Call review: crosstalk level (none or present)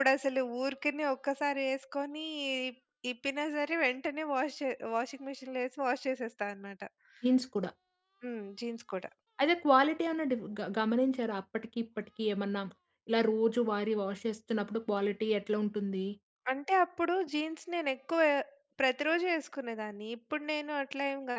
none